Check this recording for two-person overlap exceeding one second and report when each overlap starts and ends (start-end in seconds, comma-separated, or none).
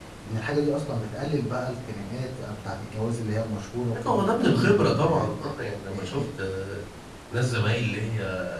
4.0-5.3